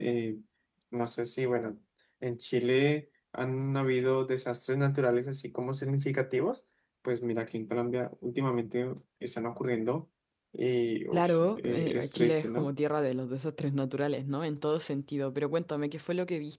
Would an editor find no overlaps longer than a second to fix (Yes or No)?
No